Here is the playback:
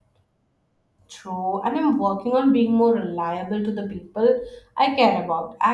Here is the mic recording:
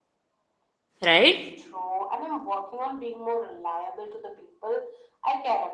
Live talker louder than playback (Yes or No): Yes